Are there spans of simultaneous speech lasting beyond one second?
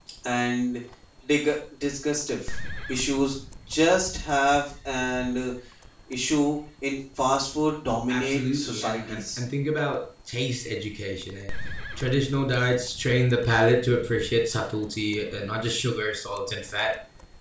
Yes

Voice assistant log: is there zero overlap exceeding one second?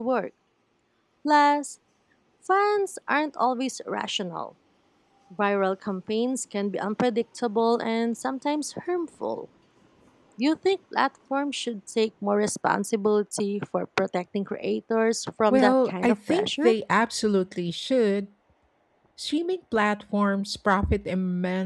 No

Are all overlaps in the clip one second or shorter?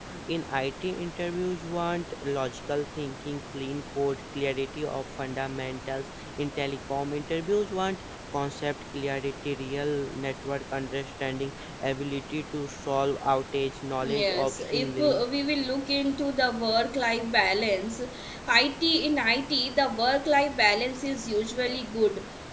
No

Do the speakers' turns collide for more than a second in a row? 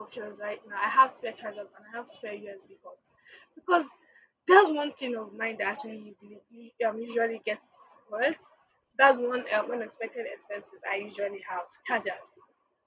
No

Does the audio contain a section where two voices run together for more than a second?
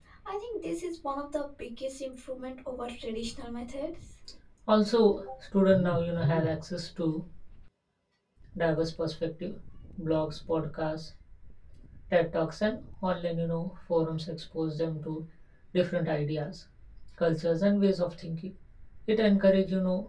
No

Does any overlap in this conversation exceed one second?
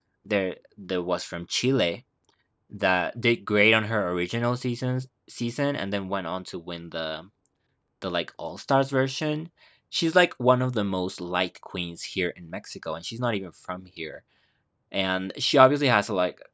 No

